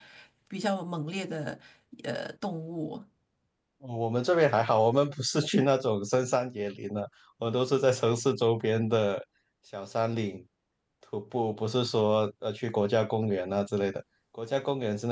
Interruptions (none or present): none